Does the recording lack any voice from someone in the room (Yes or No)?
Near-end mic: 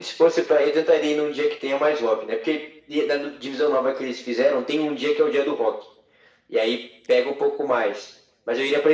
Yes